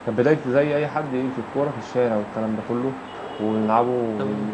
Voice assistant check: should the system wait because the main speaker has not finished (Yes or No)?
Yes